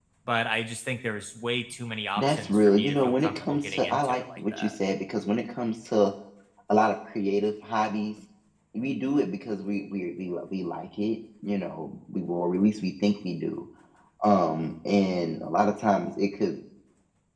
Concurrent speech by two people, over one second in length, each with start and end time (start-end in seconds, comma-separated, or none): 2.2-4.8